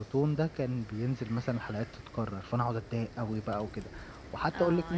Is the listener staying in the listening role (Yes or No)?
No